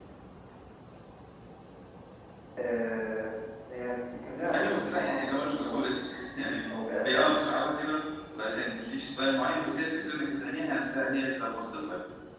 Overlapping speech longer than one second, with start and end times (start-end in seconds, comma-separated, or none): 4.5-5.9